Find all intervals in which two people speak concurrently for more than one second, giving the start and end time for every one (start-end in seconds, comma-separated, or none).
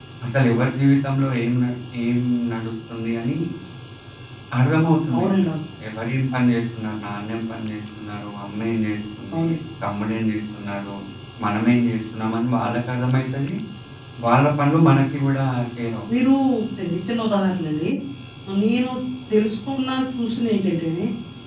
none